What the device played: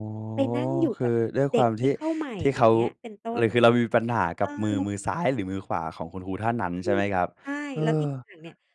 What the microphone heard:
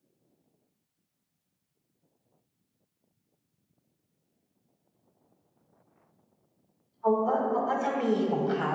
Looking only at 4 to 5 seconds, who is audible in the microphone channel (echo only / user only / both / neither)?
neither